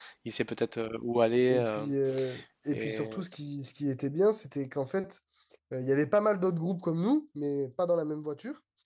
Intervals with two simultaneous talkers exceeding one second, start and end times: none

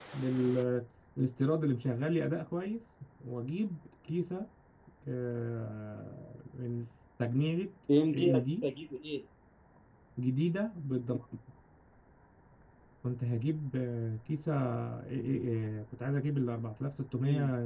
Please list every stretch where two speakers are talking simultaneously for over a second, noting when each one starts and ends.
none

